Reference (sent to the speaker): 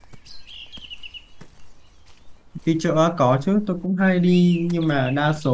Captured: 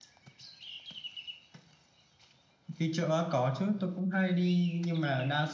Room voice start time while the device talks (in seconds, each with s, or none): none